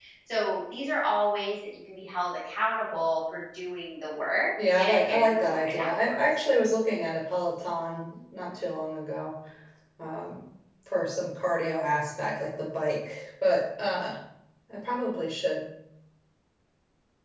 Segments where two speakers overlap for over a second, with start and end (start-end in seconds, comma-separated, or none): 4.8-6.2